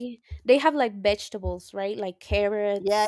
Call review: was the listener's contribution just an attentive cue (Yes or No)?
No